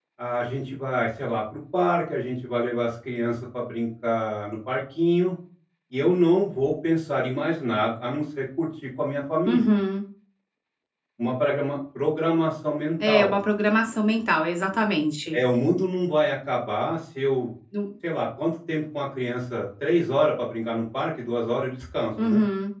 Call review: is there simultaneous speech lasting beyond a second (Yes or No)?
No